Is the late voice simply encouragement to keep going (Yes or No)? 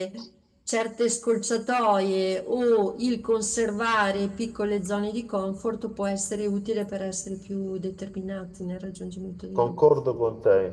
No